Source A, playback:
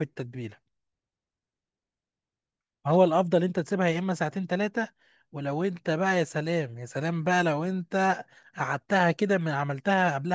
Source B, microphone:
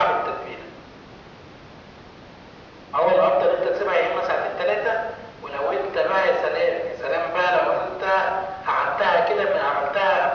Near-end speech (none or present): none